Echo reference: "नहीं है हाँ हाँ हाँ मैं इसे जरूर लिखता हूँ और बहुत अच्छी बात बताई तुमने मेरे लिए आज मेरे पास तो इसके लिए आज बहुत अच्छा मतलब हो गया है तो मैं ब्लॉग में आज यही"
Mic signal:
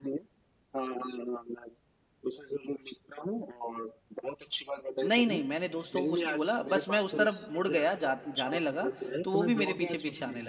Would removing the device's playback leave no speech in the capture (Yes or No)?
No